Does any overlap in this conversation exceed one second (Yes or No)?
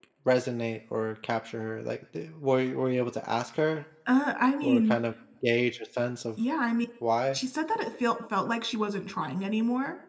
No